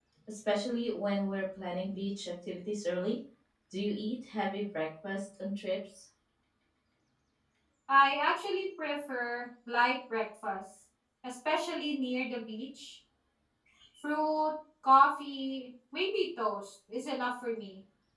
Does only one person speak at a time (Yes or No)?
Yes